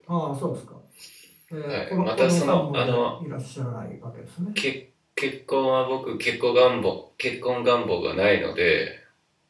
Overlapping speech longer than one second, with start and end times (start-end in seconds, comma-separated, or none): 1.7-3.0